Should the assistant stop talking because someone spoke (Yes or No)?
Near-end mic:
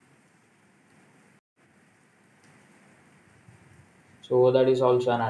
Yes